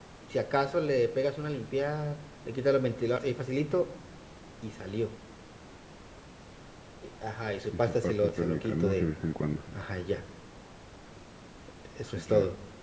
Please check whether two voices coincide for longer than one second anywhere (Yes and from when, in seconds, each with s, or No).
Yes, from 7.7 s